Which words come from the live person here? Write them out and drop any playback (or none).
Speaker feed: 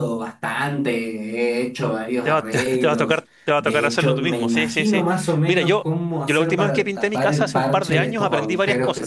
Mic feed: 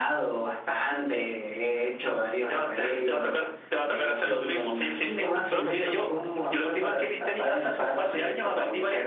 con cloro, sí, sí, sí.